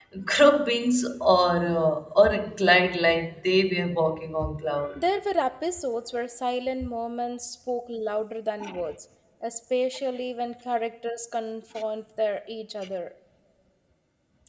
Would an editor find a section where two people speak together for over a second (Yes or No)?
No